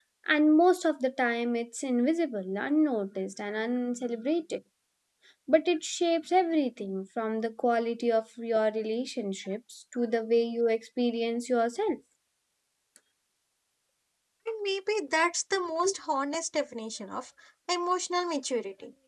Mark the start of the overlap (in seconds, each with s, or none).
none